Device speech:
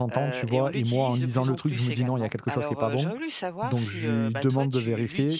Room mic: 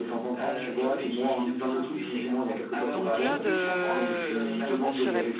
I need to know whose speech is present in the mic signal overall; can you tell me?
both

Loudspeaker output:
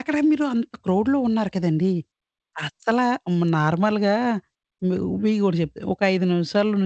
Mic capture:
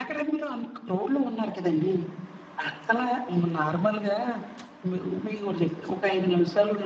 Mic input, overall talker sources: echo only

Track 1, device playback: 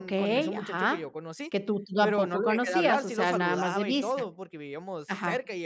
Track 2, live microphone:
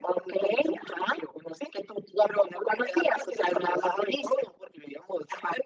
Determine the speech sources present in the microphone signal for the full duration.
echo only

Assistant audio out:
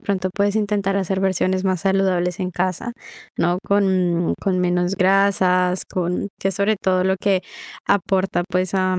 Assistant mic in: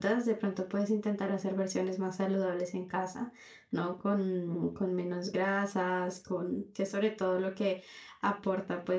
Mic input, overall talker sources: echo only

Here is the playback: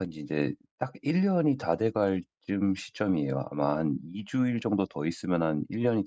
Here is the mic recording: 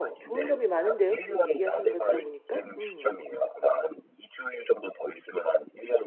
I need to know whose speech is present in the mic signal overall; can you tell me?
both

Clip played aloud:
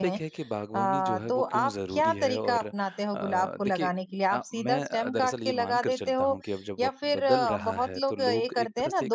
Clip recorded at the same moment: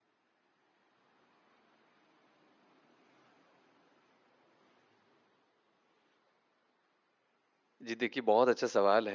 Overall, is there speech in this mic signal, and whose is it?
user only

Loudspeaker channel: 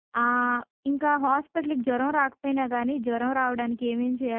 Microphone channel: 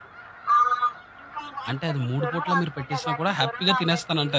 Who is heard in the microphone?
both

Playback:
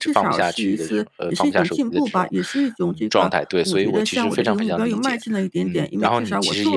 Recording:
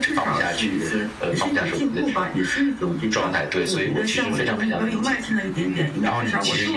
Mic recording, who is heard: echo only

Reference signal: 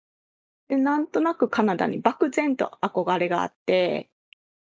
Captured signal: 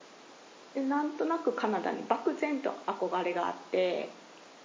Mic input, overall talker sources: echo only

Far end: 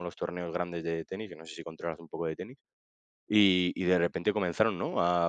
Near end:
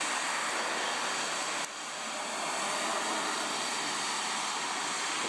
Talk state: neither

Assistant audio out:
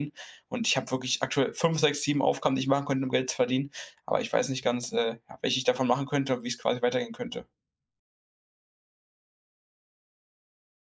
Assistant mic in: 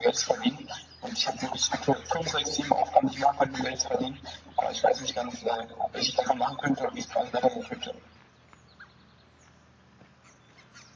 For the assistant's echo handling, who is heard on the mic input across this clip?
echo only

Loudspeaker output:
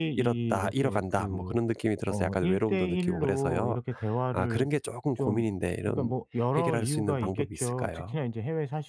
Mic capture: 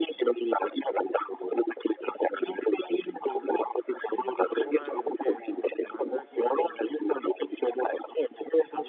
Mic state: both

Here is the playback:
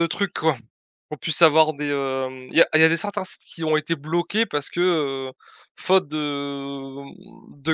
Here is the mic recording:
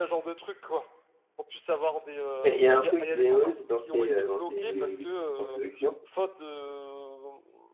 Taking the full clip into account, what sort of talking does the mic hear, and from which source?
both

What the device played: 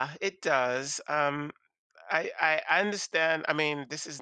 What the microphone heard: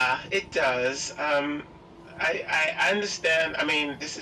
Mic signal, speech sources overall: echo only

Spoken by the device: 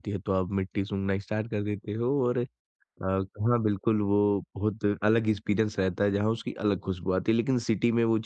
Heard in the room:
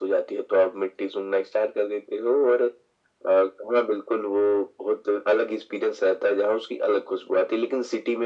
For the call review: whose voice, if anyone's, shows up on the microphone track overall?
echo only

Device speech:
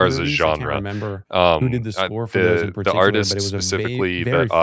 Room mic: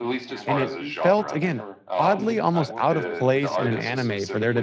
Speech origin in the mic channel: both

